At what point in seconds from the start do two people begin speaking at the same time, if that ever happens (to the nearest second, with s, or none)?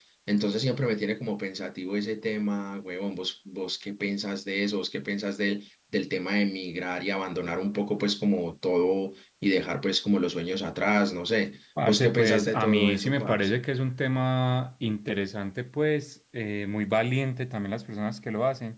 12 s